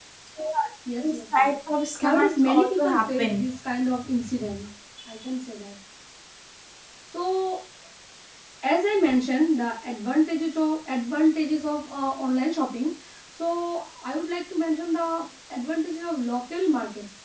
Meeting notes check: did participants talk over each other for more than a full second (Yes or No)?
Yes